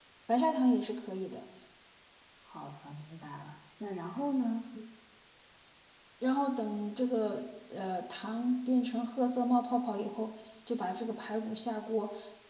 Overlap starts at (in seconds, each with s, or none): none